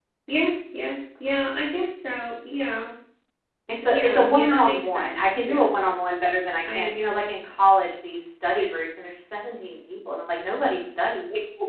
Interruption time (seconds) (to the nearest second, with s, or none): 4 s